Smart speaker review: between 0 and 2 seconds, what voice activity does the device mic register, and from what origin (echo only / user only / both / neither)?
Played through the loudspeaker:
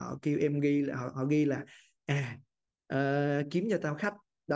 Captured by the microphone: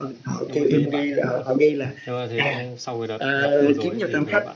both